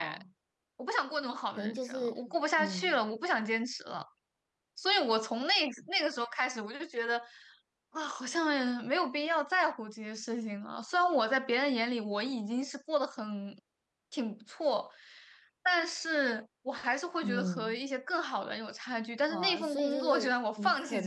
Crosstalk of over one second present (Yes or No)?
Yes